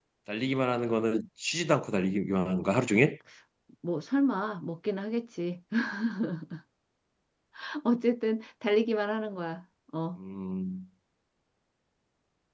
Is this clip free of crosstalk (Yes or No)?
Yes